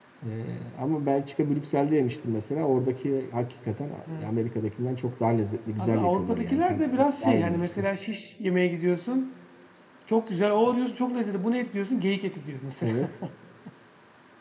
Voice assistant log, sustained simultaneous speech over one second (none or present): present